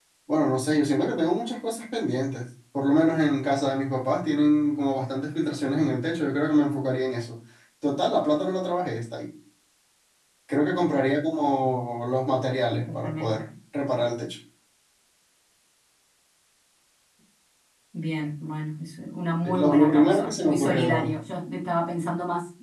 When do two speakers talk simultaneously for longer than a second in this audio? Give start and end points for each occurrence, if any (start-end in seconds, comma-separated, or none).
19.4-21.2